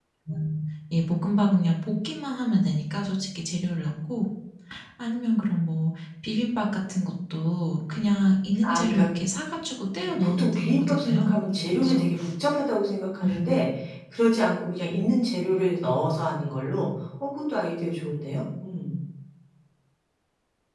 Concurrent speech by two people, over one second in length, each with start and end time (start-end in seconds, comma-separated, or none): 10.0-11.3